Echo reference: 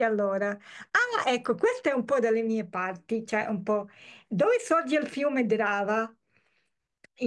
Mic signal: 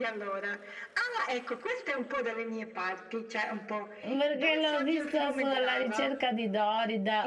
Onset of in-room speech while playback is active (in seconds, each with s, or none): 4.0 s